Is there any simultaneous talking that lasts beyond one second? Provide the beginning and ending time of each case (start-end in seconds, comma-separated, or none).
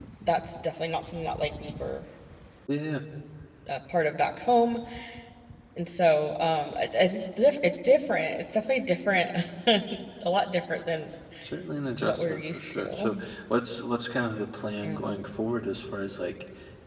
12.0-13.2